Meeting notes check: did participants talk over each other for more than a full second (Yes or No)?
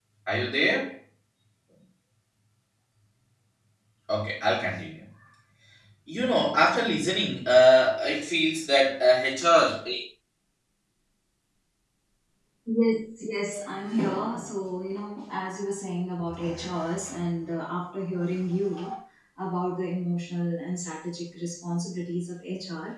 No